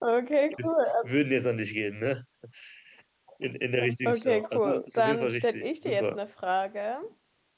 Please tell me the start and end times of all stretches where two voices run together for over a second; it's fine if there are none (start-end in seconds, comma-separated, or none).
4.0-6.2